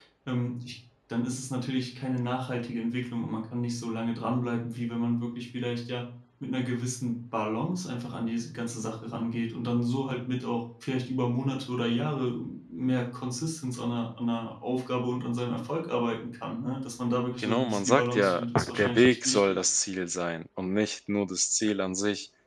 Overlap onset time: 17 s

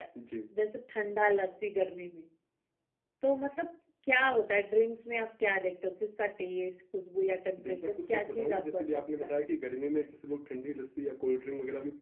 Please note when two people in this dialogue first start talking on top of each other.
8 s

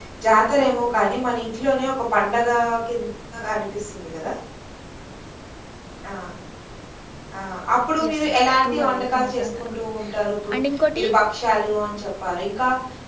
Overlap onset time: 8 s

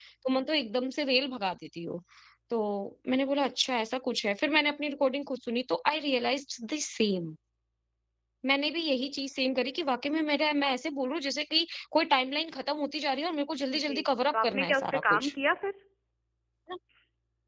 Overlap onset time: 14 s

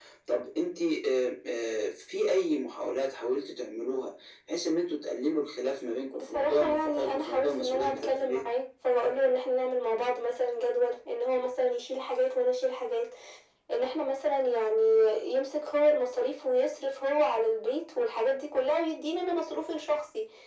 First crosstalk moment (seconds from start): 6 s

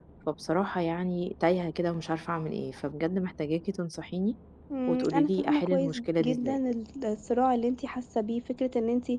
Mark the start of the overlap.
5 s

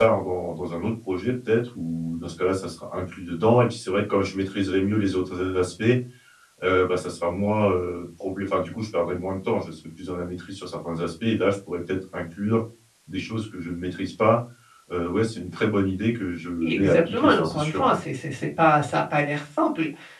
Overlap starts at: 17 s

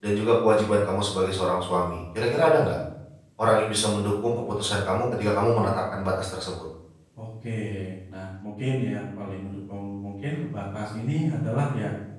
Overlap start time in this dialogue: none

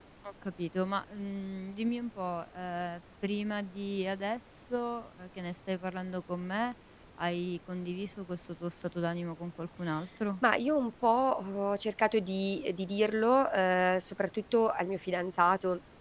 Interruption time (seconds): none

